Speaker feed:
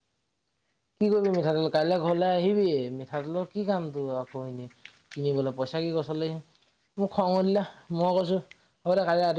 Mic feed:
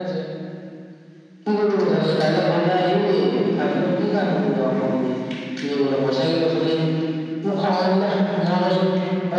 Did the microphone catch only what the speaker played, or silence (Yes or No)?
Yes